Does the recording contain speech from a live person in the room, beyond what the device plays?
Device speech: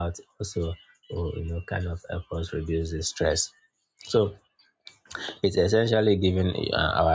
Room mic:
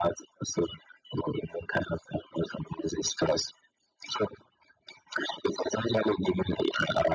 No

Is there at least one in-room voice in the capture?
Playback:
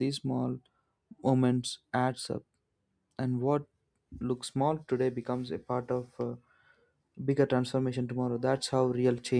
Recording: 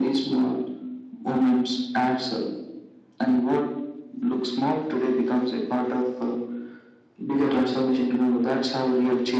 No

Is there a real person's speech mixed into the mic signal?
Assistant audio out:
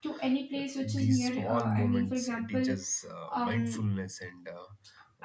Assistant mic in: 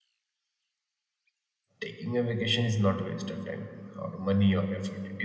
Yes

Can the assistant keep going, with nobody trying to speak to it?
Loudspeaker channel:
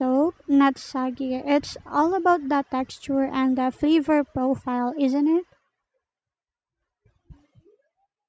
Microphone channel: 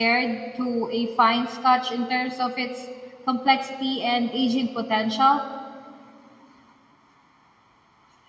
No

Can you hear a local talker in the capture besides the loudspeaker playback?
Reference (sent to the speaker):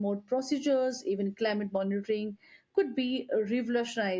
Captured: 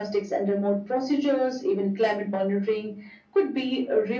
No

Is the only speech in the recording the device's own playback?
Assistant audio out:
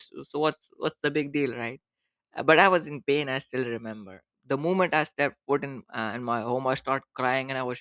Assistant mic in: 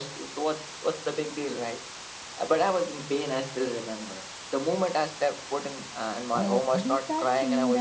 No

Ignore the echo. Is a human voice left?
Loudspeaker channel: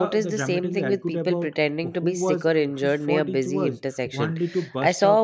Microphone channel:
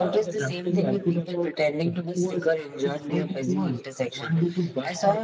No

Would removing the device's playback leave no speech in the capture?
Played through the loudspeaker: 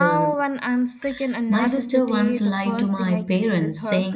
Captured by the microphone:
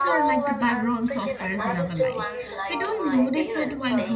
No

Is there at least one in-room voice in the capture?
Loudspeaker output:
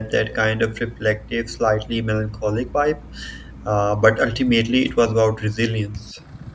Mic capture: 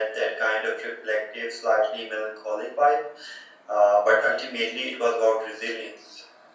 No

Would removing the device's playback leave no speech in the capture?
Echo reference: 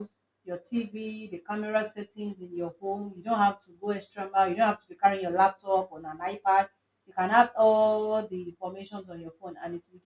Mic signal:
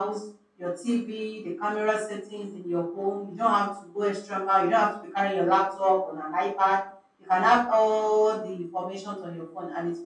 Yes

